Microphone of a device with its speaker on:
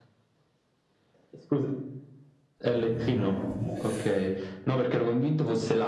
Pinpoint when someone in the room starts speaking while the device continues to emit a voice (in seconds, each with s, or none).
2.7 s